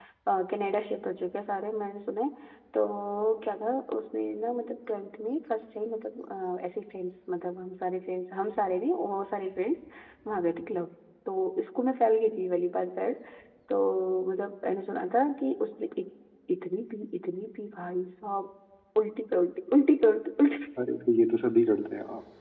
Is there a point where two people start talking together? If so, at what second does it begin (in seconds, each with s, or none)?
none